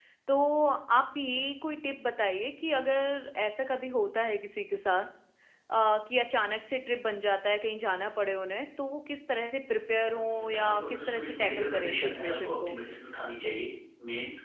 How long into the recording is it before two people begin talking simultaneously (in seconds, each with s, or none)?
10.1 s